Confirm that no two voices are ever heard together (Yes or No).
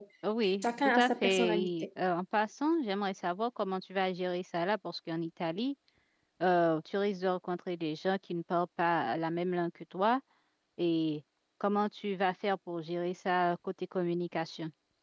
No